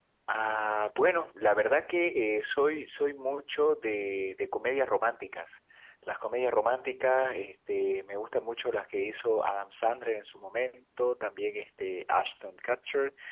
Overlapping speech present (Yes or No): No